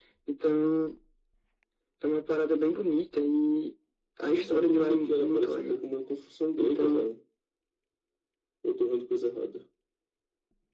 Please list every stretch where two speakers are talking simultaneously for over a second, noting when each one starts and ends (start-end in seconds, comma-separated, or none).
4.3-5.8